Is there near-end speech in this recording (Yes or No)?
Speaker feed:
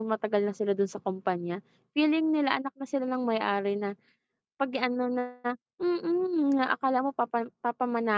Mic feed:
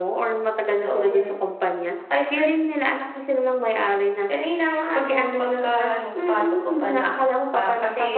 Yes